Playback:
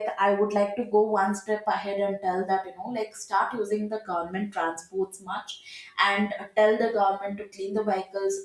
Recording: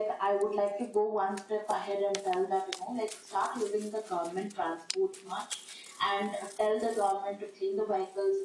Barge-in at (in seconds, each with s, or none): none